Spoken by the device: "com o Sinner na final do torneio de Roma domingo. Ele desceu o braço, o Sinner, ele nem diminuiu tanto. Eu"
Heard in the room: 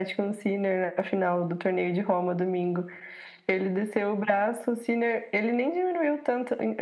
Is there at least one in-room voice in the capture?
No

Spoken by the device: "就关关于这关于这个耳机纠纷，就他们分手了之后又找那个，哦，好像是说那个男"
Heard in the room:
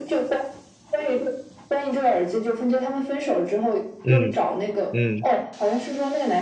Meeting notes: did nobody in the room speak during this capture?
No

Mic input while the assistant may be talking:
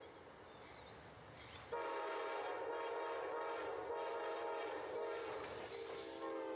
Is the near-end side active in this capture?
No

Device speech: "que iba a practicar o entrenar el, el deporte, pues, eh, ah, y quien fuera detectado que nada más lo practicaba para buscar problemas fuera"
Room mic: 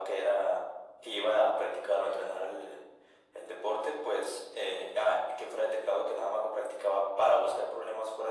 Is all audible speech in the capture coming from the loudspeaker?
Yes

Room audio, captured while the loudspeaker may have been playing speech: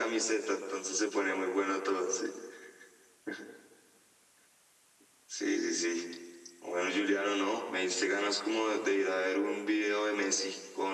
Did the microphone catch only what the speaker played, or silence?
Yes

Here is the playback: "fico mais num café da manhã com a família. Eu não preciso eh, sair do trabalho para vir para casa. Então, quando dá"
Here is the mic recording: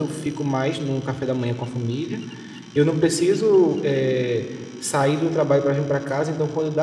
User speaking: No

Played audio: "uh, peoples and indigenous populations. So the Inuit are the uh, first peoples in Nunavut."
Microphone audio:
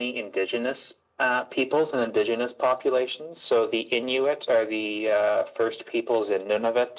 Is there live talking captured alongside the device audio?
No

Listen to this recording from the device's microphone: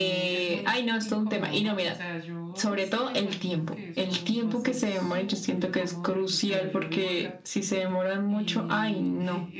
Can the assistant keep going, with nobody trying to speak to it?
No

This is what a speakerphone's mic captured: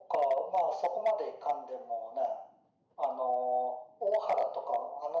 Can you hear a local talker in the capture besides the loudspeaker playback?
No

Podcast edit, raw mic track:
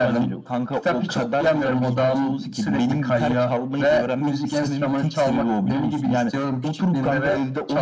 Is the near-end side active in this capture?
No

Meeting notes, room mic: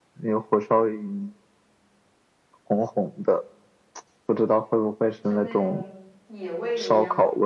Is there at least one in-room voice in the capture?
Yes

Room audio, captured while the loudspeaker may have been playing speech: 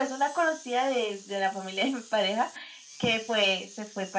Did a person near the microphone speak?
No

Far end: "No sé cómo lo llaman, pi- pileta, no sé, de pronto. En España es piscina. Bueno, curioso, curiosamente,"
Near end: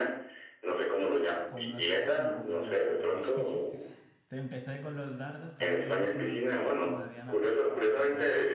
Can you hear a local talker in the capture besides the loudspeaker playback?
Yes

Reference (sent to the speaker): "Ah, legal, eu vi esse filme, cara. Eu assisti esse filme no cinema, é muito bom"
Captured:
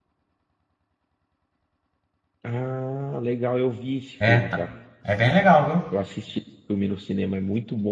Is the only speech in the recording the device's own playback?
No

